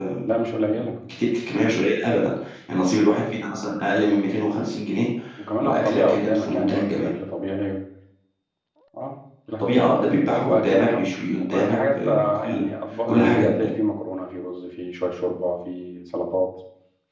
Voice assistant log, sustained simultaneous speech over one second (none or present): present